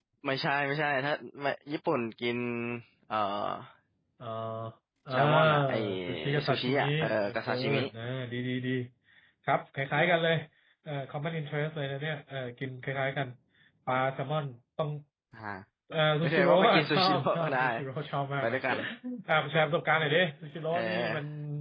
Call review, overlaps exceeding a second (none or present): present